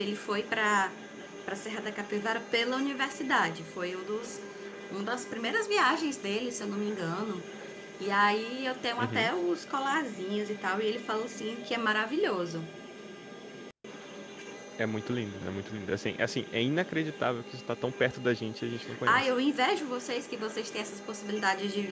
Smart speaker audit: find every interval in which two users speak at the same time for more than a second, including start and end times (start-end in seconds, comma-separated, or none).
none